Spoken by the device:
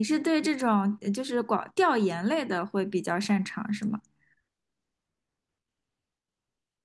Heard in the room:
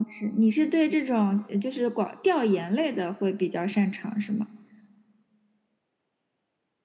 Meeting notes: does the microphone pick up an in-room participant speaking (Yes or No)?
No